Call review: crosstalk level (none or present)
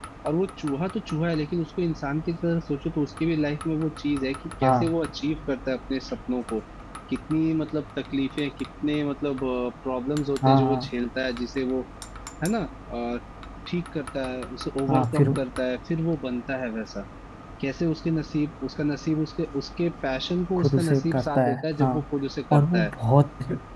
present